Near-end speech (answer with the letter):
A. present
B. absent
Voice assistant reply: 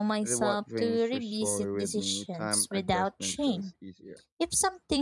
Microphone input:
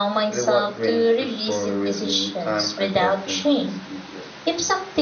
B